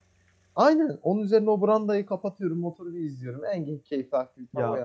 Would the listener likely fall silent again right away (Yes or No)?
No